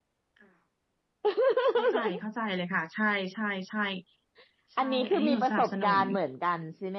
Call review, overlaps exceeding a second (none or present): present